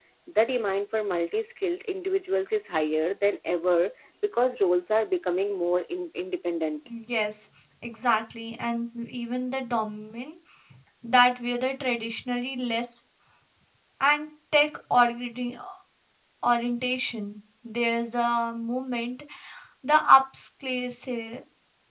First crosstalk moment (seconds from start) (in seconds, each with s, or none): none